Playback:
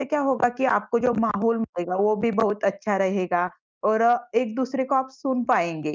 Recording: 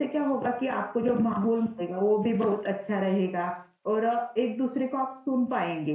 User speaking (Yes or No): No